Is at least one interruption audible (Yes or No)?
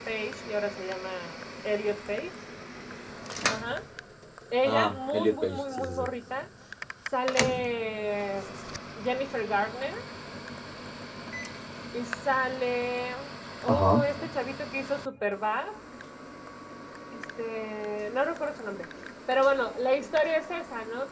Yes